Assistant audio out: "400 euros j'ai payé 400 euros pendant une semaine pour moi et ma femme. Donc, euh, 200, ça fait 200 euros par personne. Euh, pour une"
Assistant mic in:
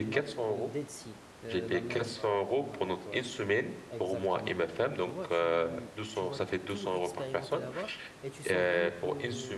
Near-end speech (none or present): present